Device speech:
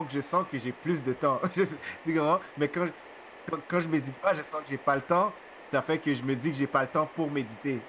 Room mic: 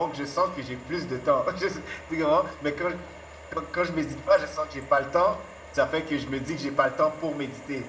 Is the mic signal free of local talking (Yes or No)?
Yes